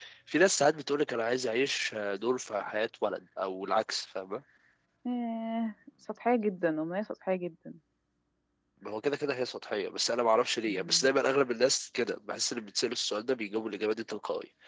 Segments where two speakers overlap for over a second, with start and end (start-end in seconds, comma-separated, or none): none